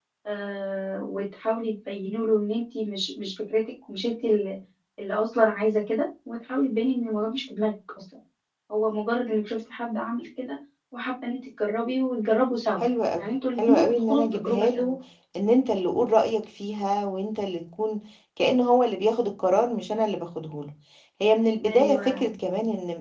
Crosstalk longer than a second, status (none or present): present